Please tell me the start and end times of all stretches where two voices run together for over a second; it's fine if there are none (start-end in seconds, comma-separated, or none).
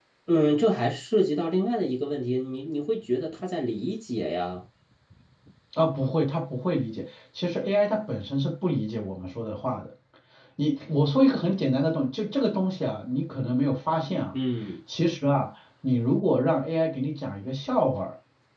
none